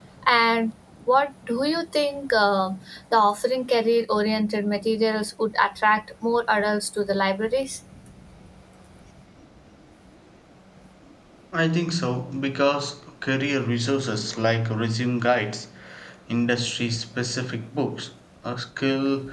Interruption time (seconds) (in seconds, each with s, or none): none